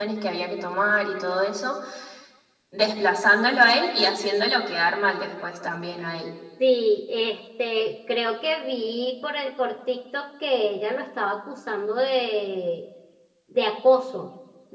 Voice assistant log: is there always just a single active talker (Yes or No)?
Yes